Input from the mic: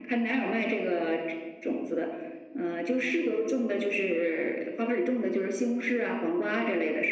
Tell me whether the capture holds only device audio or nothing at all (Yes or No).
Yes